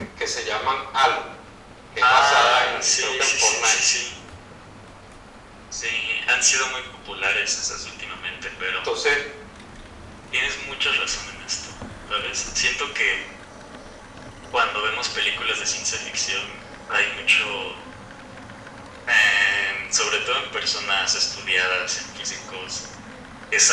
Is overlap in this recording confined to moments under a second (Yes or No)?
No